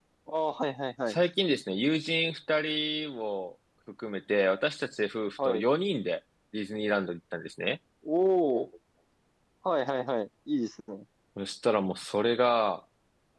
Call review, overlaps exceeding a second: none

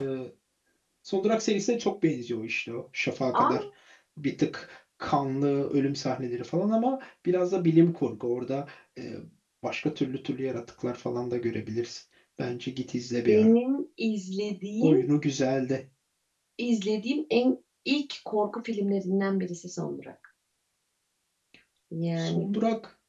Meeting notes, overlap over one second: none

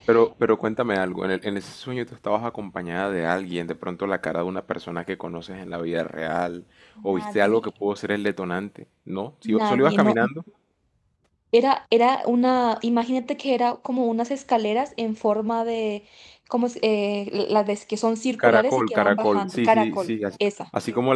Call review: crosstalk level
present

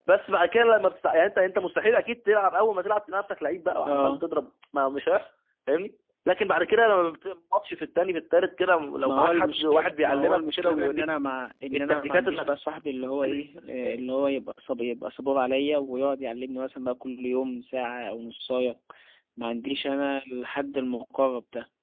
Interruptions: present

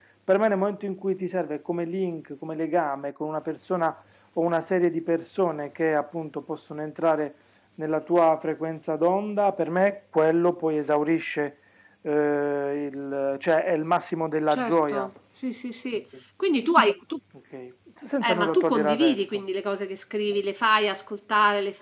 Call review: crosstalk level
present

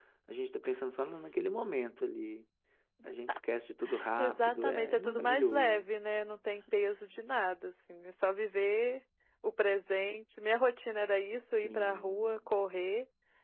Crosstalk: present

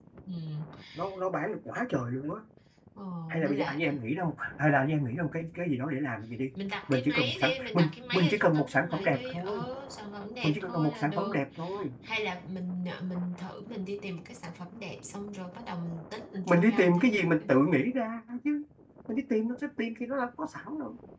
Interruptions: present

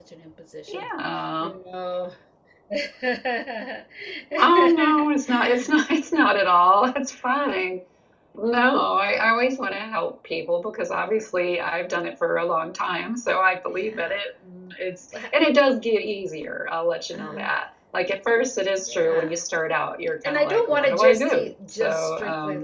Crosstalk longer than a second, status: present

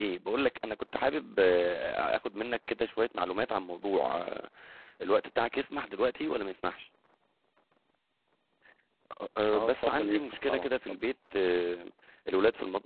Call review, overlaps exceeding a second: present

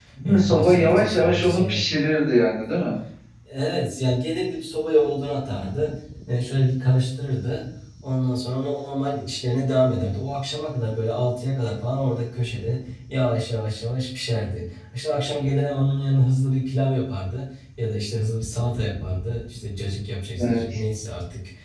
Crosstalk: present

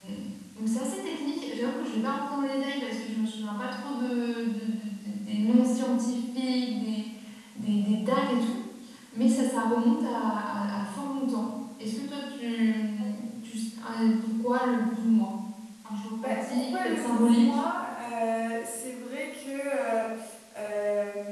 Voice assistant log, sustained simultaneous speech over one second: present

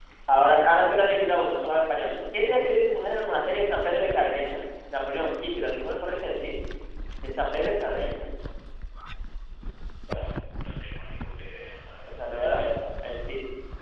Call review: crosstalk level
none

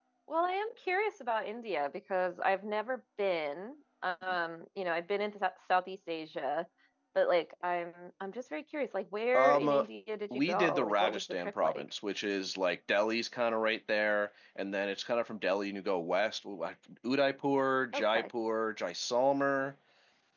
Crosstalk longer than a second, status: present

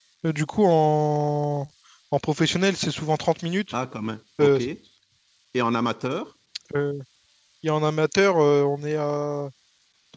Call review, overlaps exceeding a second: none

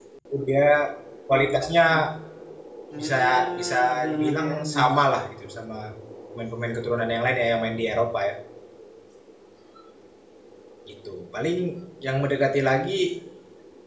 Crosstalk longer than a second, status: present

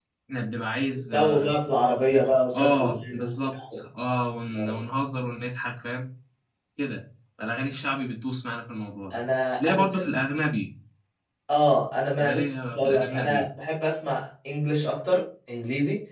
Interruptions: present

